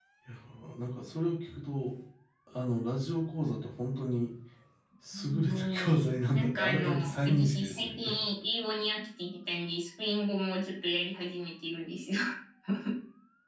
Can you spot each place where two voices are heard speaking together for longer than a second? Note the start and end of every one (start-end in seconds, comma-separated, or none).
5.2-8.1